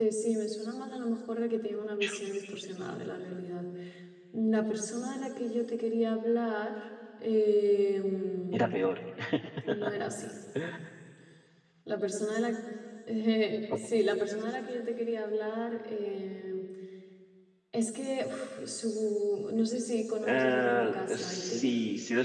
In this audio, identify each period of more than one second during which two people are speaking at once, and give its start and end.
20.2-21.7

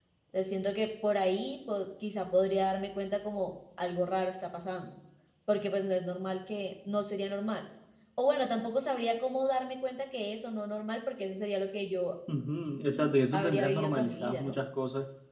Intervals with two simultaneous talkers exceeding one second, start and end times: 13.3-14.6

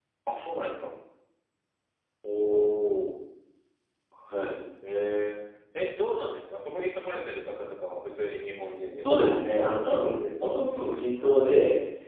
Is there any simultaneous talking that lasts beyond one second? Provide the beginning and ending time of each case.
9.0-10.5

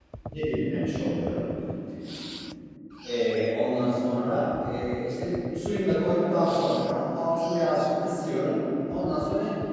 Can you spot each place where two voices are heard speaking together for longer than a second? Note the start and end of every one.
none

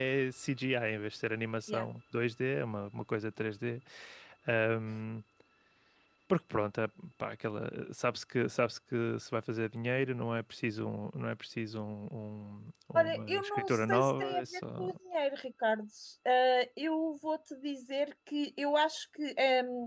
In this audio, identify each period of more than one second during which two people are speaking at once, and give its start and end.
12.9-14.9

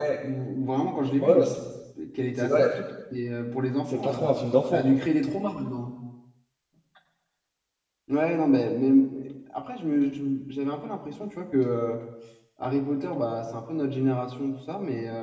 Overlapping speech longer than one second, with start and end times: none

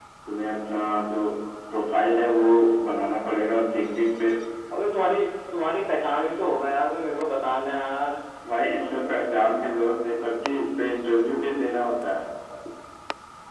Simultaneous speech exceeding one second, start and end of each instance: none

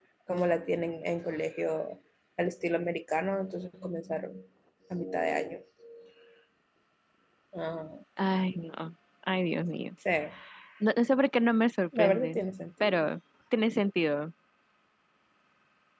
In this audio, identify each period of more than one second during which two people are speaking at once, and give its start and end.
none

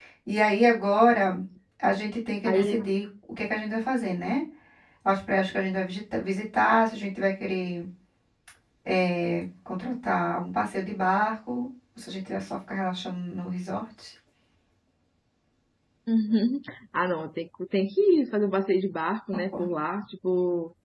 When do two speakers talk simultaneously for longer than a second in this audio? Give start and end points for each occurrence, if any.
none

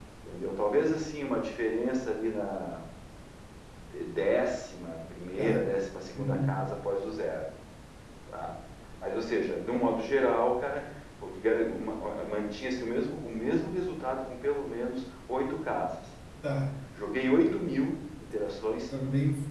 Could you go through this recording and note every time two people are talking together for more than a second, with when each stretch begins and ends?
none

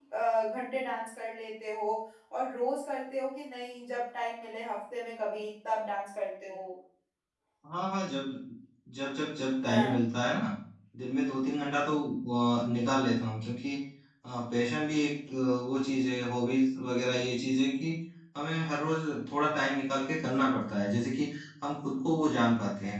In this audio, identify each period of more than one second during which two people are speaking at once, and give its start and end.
none

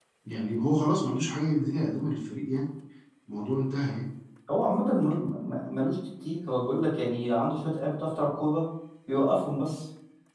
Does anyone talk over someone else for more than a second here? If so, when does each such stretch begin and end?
none

